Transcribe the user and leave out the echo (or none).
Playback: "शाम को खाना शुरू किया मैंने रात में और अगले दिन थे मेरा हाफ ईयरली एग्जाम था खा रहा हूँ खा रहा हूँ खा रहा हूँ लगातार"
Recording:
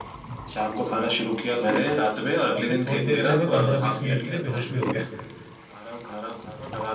और फिर थोड़ी देर के लिए मैं पंद्रह बीस मिनट के लिए बेहोश भी हो गया